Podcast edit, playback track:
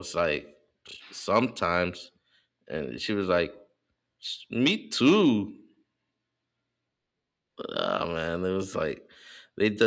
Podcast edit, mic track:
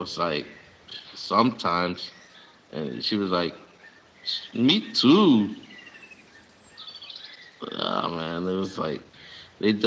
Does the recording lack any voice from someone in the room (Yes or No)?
Yes